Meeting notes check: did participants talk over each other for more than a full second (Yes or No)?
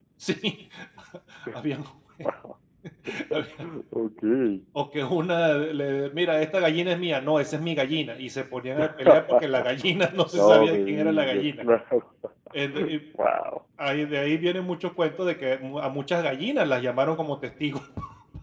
Yes